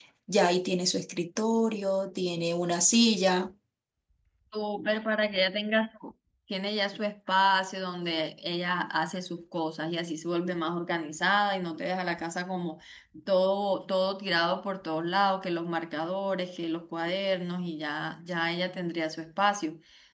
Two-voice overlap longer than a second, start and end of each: none

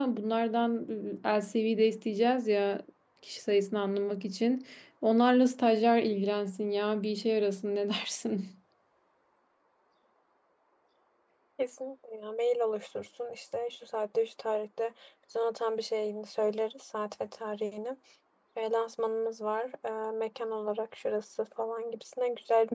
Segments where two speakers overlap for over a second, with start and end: none

